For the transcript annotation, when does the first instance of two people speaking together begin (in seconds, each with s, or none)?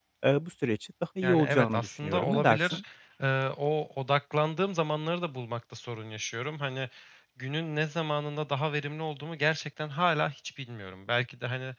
1.2 s